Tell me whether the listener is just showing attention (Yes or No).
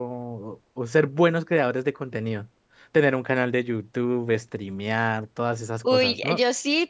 No